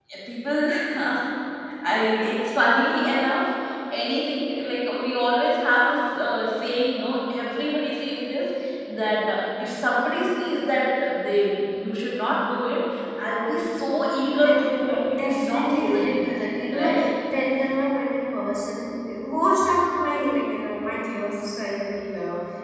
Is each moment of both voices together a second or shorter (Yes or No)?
No